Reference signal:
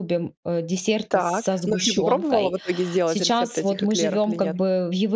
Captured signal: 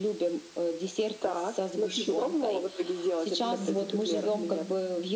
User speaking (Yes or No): Yes